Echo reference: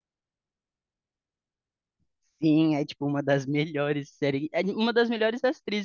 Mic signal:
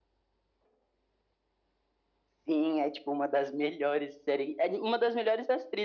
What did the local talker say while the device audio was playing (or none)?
none